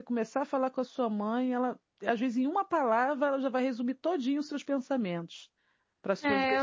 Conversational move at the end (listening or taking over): taking over